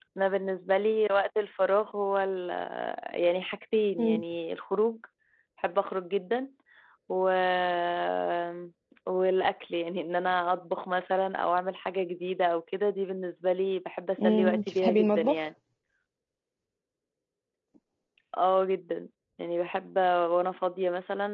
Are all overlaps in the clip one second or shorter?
No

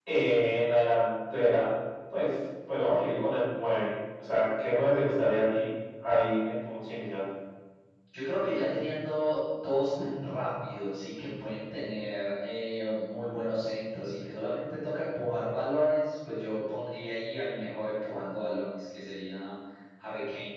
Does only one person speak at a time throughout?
Yes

